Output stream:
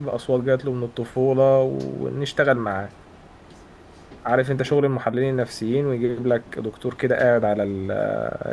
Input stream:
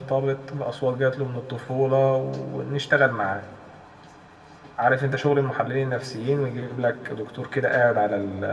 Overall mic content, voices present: echo only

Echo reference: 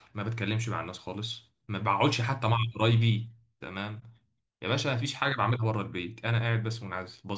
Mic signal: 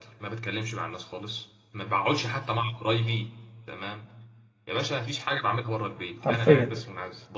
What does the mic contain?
both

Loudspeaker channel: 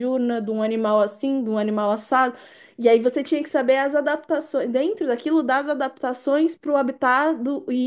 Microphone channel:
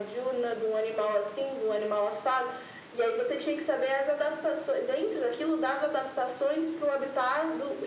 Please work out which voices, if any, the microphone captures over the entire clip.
echo only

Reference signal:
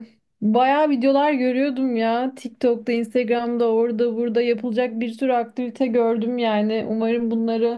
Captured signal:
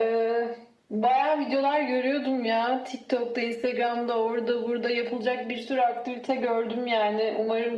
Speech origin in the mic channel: echo only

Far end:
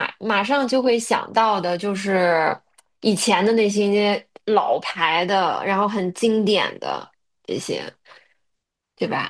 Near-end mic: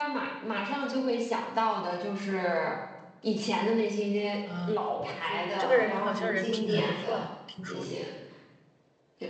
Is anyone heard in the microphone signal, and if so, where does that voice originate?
both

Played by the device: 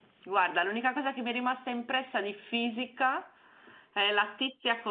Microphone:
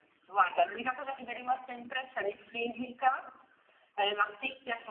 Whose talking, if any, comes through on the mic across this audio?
echo only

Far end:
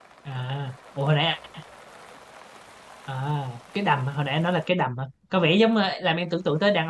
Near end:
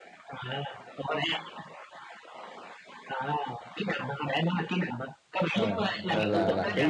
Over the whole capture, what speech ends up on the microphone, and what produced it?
both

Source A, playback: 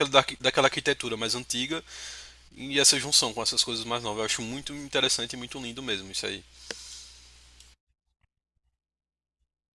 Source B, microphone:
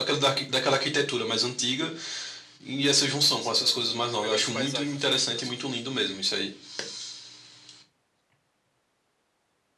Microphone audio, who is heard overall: both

